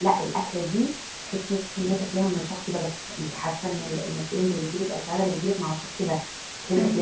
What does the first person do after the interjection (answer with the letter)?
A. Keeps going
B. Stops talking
A